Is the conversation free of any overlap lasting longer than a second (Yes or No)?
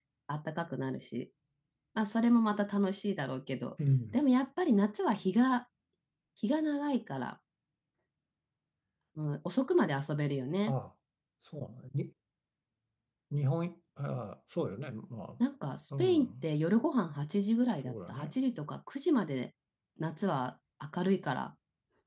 Yes